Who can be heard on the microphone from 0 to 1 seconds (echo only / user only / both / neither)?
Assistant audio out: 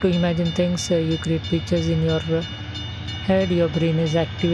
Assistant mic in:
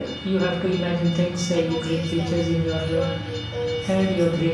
echo only